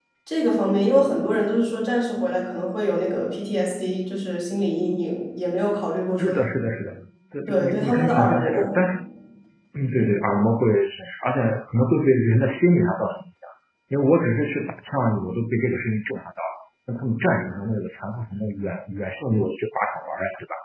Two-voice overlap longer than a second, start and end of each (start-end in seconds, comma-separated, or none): 7.5-8.8